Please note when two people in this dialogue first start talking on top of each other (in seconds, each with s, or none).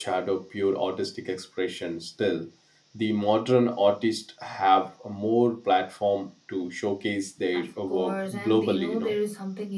7.5 s